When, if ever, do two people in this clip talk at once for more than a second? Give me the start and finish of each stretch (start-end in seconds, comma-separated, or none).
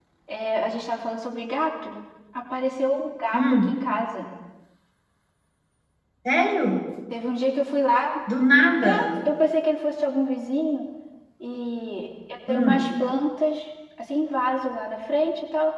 none